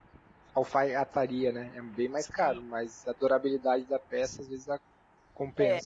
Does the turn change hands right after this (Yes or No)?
Yes